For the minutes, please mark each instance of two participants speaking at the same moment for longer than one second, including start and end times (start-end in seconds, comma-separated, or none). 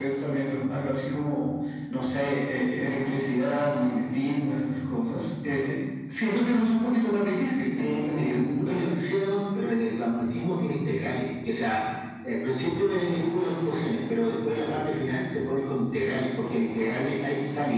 7.7-9.0